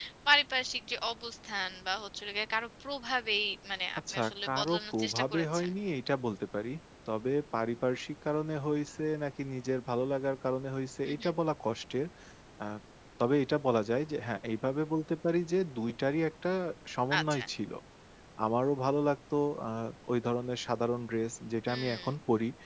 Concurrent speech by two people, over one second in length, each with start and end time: 4.1-5.7

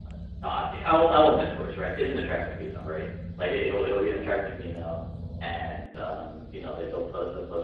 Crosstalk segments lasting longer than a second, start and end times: none

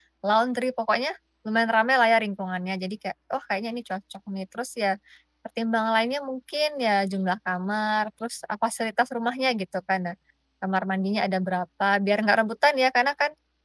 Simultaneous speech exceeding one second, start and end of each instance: none

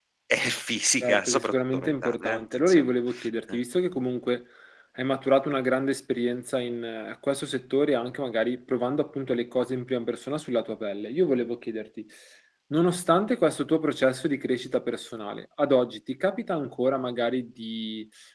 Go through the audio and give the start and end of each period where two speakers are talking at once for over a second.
1.0-2.9

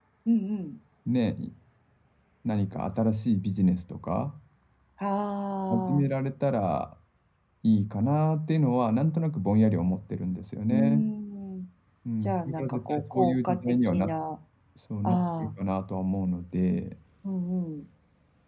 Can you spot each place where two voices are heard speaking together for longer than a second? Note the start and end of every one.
12.2-14.1

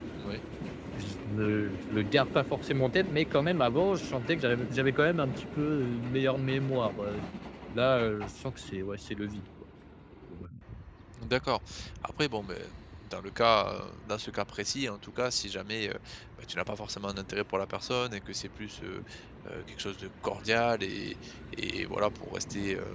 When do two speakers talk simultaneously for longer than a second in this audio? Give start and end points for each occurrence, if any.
none

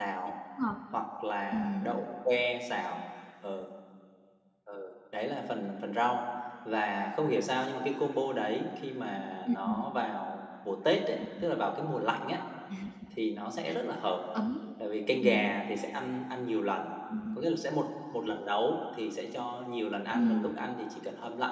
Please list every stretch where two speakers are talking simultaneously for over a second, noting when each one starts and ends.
none

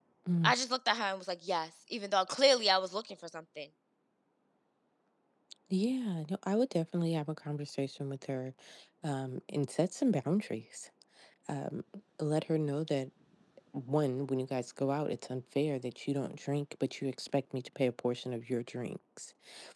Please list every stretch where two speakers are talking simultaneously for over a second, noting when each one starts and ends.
none

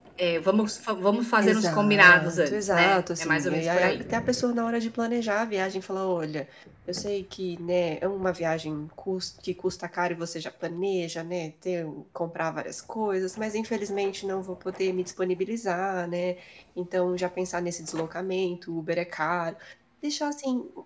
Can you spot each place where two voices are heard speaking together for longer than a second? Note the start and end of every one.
1.4-4.0

